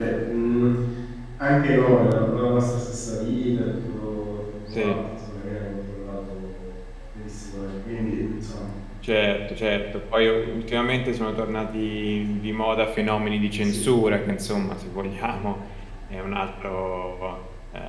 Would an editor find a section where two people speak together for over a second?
No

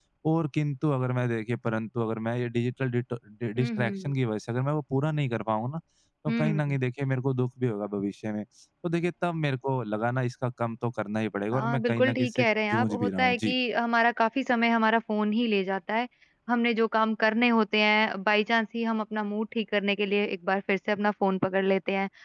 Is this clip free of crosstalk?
No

